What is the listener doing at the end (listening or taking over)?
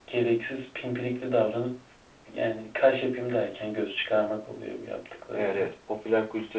taking over